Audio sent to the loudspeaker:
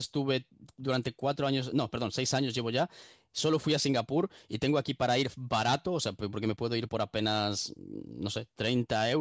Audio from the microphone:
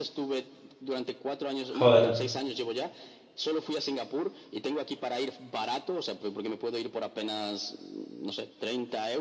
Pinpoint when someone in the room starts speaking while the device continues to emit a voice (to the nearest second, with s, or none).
2 s